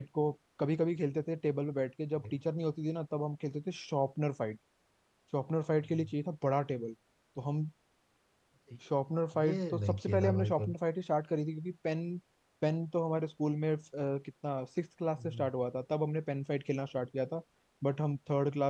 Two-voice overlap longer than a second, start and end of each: 9.4-10.7

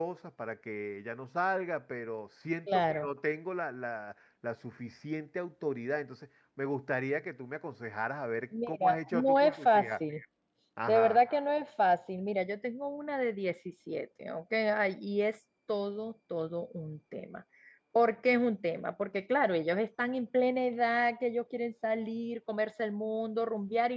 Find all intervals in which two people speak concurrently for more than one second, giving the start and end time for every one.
8.7-9.9

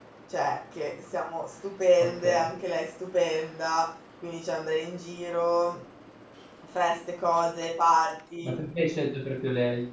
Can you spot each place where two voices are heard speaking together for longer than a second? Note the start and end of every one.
none

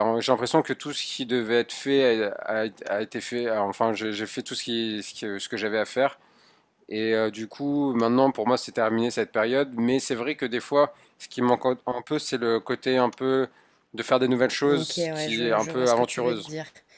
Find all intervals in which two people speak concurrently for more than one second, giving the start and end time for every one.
14.7-16.4

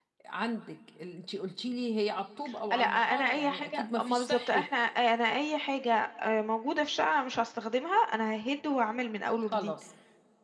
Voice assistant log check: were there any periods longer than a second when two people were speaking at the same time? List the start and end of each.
2.8-4.7

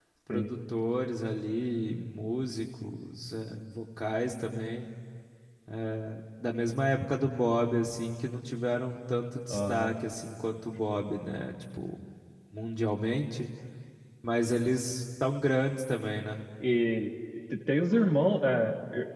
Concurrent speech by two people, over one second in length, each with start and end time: none

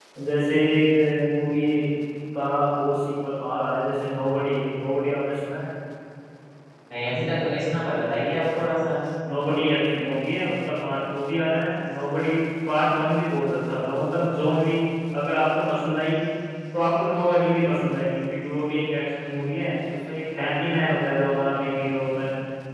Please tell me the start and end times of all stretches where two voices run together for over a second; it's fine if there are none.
none

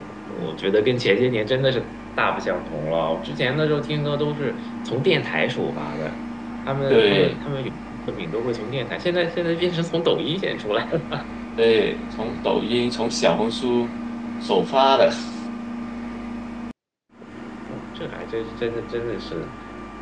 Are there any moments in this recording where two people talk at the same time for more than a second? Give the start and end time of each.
none

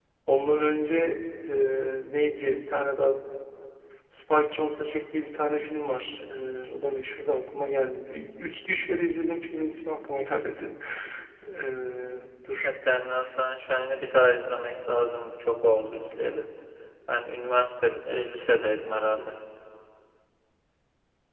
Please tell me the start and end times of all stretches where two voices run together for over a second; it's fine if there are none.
none

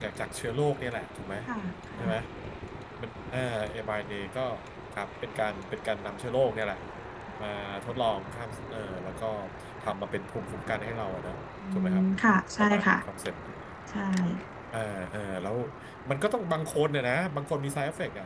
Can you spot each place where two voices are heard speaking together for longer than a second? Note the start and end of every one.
11.7-12.9

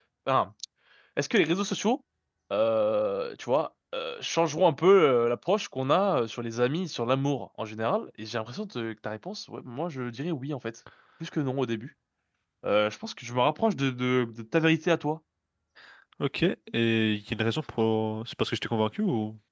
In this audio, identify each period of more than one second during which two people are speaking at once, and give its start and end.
none

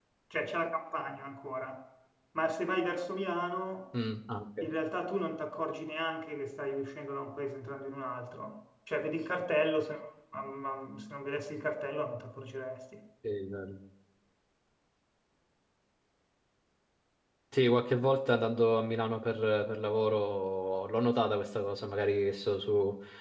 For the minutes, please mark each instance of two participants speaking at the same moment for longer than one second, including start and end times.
none

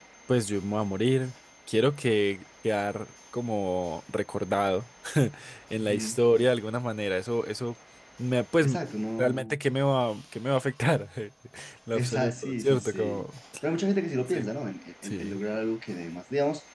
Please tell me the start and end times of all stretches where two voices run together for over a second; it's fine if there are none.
12.0-13.2

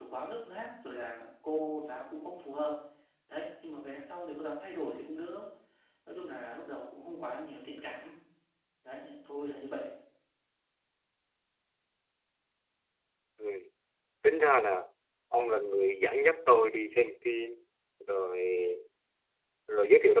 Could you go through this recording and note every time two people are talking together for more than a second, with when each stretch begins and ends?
none

